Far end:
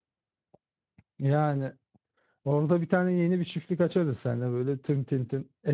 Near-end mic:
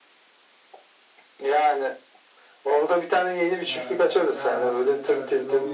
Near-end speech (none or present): present